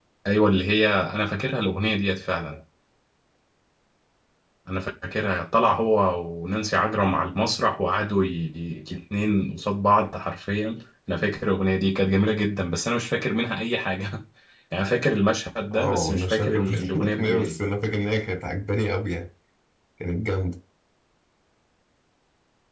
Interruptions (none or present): present